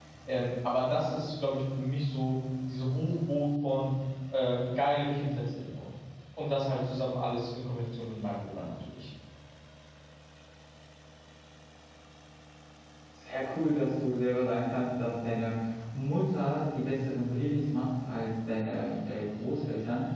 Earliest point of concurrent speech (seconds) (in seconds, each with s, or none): none